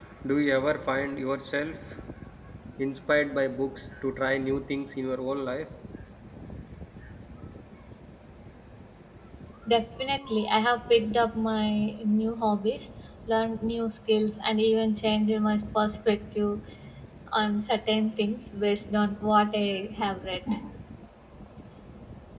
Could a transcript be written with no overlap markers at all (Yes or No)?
Yes